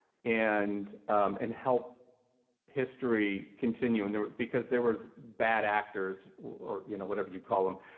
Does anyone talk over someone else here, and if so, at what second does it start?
none

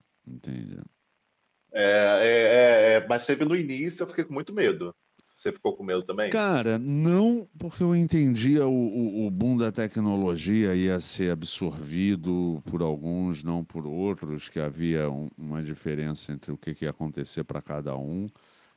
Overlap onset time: none

